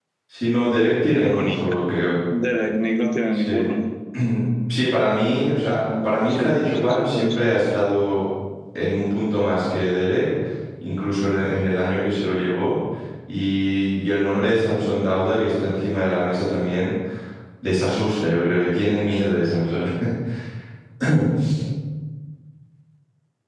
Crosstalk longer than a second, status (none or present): present